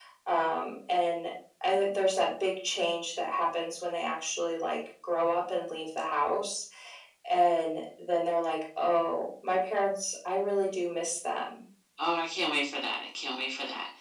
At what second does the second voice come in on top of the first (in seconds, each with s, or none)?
none